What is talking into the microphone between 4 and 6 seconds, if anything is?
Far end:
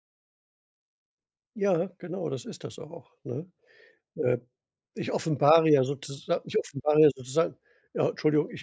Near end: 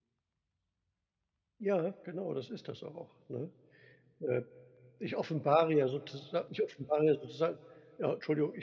echo only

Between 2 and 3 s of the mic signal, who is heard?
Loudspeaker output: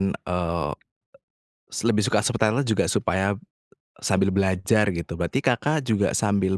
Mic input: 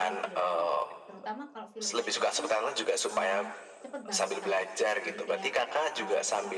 both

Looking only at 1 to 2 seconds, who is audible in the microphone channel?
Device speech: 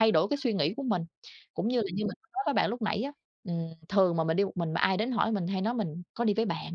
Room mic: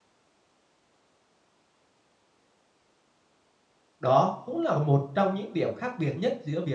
neither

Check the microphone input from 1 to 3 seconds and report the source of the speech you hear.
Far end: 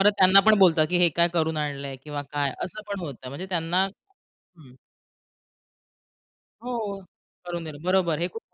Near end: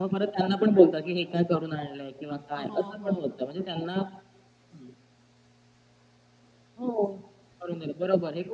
both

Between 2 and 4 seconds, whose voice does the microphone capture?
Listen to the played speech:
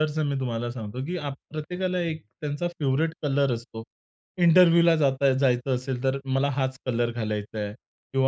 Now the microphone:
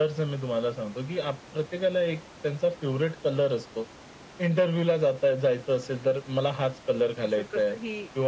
echo only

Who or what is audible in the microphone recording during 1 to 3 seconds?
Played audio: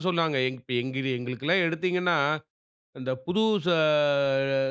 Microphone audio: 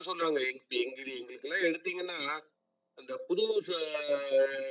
echo only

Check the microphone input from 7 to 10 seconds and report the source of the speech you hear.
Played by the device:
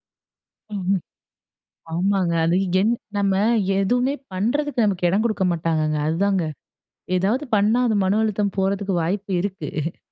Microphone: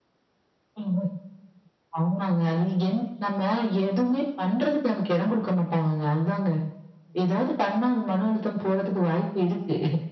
echo only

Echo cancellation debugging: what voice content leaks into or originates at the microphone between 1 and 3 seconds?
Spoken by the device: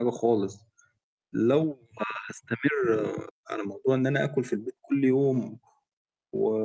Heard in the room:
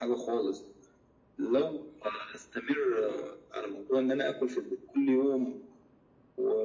echo only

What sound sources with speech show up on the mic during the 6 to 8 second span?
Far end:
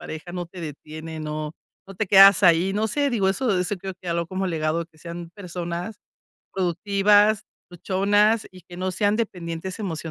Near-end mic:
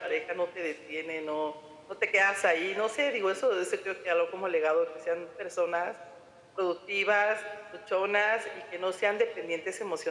echo only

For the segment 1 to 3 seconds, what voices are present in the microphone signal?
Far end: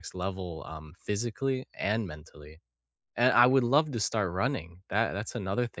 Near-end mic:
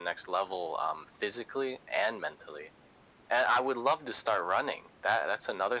echo only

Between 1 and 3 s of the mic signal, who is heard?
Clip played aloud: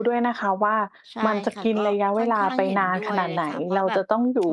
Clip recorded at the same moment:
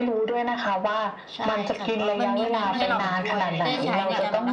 both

